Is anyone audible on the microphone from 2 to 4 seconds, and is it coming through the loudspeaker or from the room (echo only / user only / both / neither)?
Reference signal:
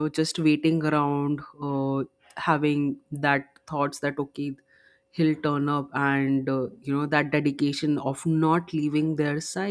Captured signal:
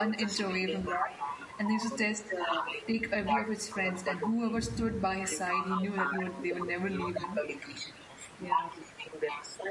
both